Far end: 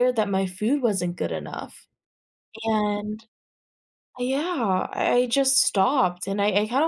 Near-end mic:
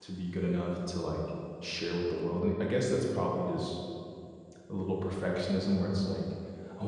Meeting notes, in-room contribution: present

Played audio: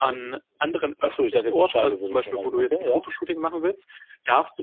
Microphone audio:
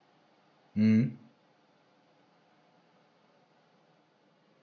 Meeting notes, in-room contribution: present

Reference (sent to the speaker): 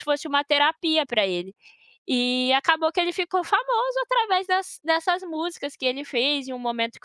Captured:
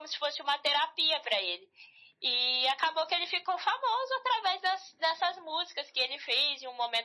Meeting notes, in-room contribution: none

